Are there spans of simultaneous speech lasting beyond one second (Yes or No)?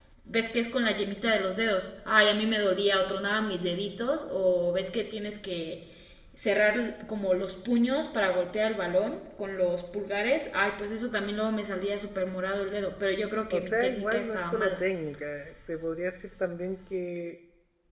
Yes